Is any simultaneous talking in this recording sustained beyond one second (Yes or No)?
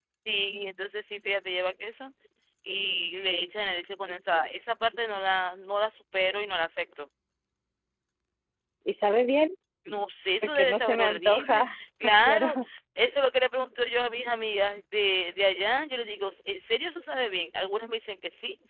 Yes